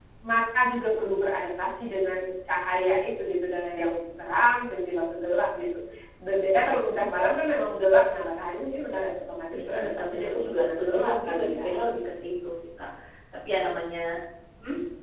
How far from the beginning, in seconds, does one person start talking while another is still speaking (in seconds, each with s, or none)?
9.5 s